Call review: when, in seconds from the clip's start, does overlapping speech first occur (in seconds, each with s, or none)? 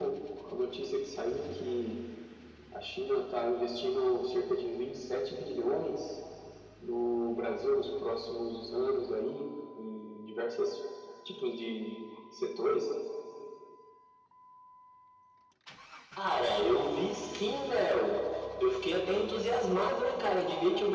none